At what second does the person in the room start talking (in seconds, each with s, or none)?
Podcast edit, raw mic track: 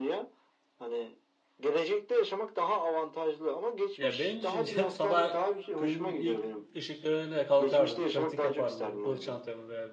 4.0 s